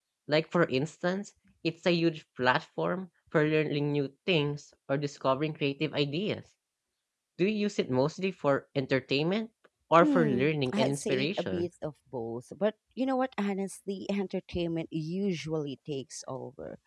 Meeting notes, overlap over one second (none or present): present